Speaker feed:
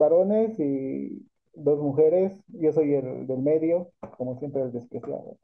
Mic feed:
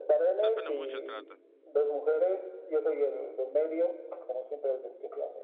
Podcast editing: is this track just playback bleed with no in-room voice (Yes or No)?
No